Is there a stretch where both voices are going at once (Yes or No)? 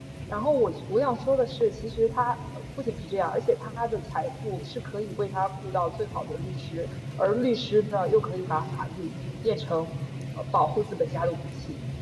No